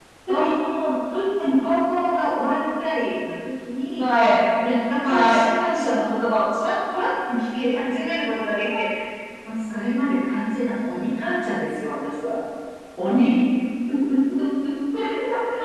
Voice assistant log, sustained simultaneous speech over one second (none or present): none